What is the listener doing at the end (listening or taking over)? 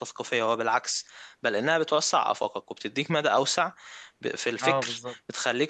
listening